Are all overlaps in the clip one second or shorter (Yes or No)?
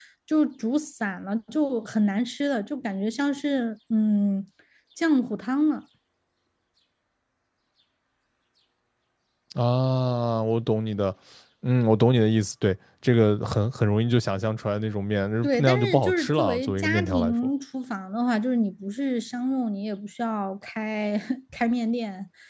No